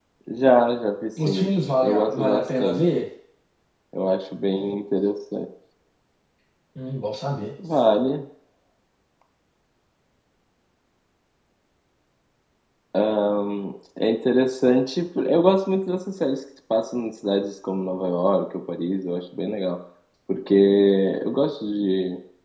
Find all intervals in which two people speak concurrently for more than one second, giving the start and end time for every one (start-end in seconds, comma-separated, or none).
1.2-2.8